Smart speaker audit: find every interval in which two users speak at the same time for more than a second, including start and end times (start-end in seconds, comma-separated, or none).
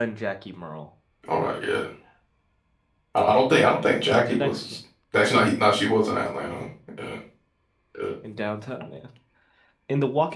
3.5-4.8